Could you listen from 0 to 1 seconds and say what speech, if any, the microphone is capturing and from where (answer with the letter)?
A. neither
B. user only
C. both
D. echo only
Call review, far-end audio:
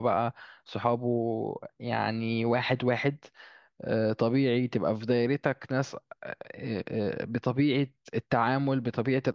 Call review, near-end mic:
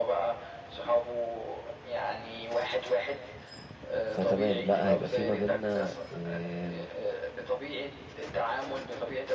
D